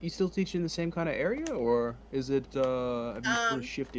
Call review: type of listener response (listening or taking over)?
listening